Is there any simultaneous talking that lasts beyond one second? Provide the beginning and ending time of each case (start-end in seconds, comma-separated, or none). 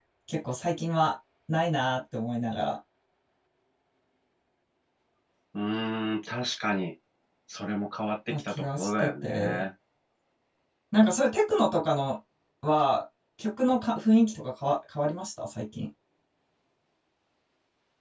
8.3-9.6